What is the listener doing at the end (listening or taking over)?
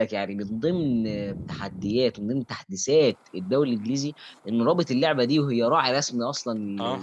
listening